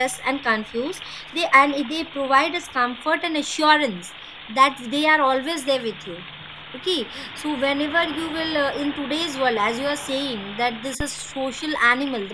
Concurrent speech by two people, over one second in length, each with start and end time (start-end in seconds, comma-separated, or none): none